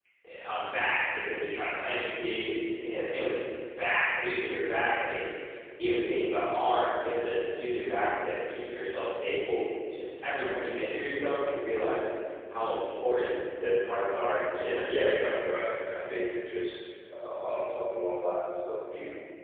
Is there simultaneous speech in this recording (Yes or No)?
No